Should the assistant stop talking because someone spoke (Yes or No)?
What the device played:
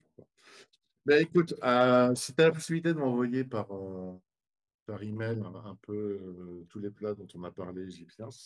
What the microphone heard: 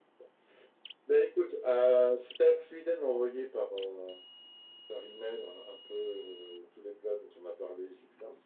No